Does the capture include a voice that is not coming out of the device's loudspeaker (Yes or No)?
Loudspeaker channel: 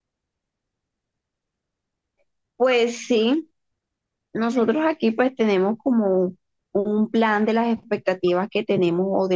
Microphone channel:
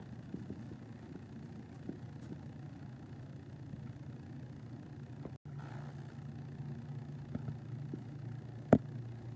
No